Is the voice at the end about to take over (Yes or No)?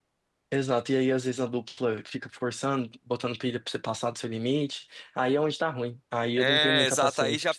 Yes